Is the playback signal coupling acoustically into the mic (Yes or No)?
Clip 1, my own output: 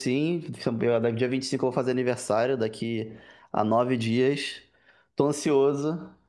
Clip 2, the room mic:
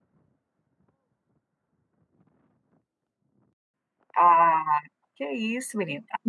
No